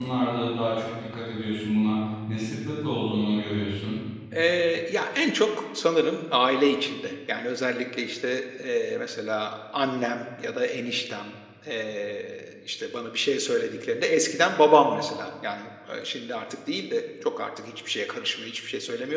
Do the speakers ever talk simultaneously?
No

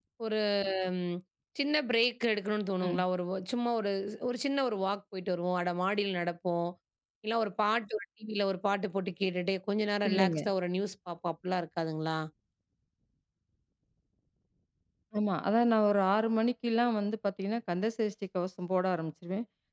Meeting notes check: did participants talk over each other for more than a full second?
No

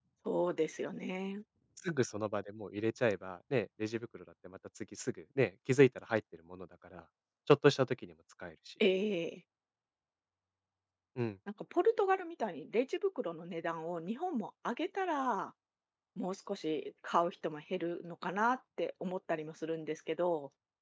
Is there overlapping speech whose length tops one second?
No

